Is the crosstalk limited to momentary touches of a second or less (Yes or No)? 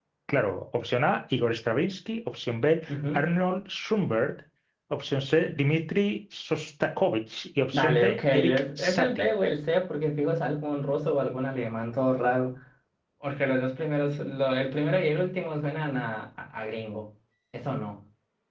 No